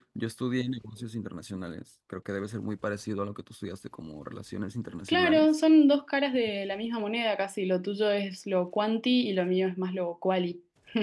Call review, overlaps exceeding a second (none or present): none